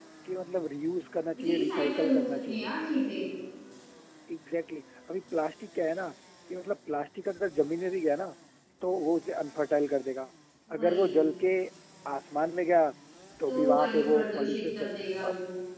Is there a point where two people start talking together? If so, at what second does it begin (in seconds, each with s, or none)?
1.4 s